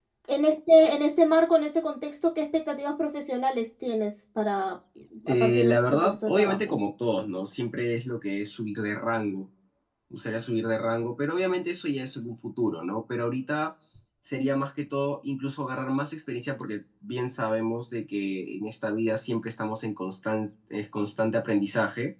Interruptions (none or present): present